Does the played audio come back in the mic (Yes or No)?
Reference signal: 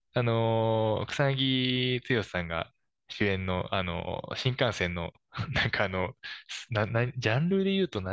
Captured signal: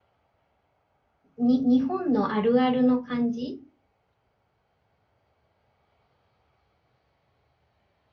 No